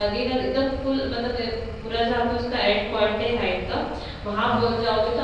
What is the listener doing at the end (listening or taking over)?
listening